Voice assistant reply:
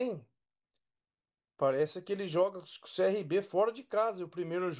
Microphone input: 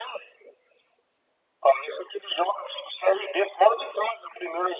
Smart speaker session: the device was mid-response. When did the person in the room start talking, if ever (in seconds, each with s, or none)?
none